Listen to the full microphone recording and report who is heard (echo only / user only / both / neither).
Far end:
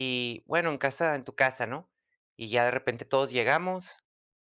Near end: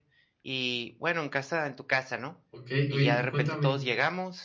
both